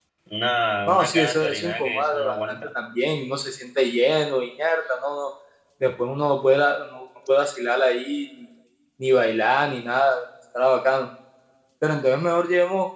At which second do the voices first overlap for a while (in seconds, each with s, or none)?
0.9 s